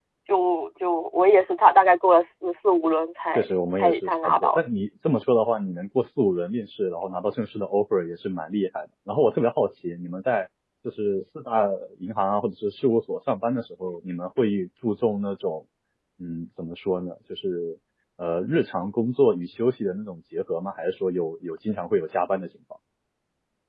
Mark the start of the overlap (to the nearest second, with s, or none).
3 s